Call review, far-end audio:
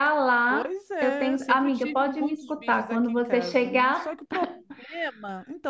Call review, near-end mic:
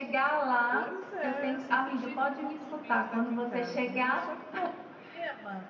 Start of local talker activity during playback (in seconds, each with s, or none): none